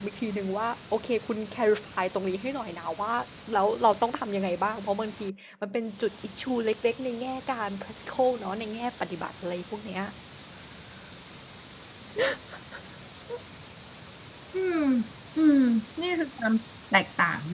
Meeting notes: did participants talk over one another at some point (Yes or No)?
No